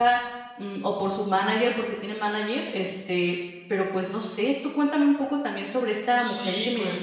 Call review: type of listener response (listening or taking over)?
taking over